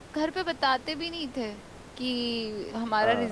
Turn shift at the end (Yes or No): No